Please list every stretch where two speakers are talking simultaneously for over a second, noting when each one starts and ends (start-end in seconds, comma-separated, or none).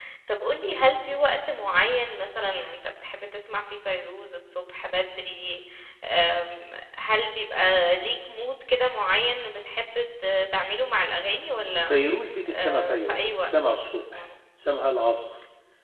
12.5-14.2